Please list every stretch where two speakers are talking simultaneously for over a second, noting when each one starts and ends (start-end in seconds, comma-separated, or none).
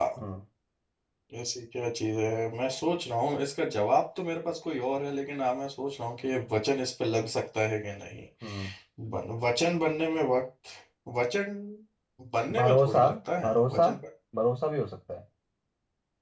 12.6-13.9